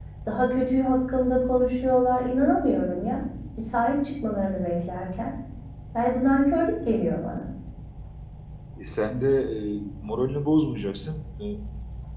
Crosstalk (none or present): none